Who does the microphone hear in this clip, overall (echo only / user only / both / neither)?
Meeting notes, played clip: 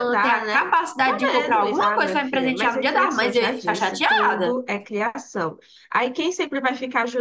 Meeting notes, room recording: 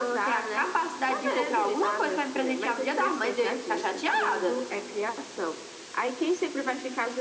echo only